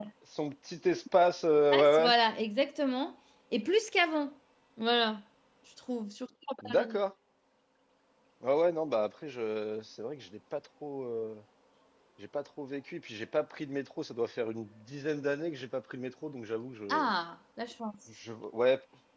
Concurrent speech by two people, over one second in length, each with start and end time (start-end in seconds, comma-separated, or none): none